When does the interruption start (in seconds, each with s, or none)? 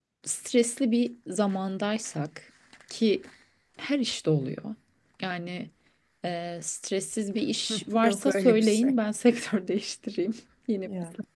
7.7 s